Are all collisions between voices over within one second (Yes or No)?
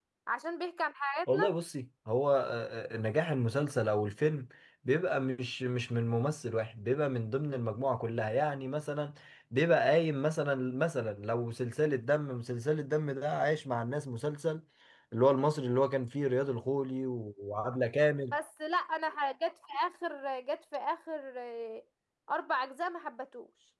Yes